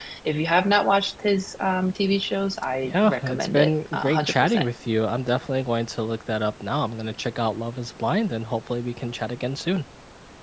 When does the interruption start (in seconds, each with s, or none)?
2.8 s